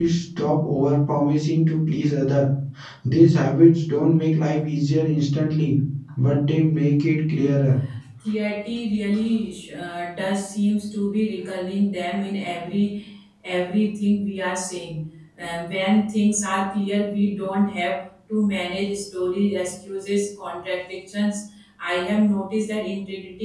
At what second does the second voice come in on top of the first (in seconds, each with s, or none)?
none